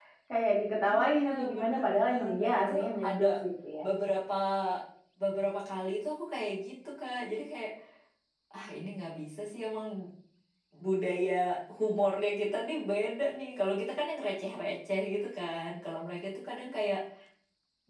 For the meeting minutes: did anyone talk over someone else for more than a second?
Yes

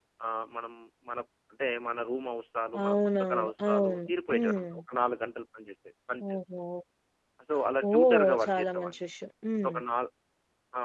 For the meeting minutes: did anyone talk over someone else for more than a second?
Yes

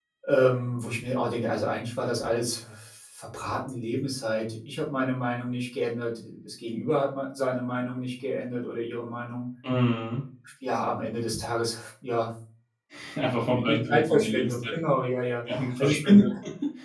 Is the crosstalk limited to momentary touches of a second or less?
No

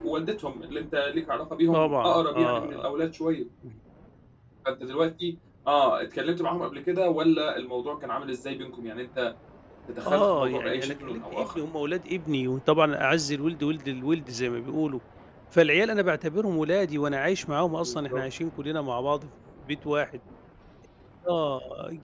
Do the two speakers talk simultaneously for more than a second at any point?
Yes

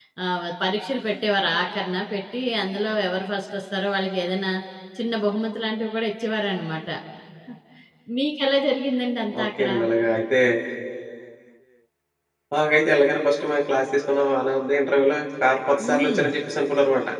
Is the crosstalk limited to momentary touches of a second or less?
Yes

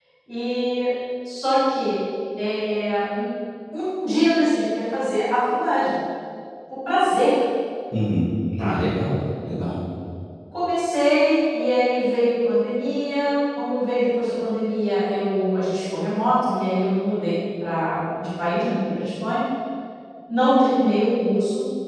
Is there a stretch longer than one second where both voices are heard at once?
No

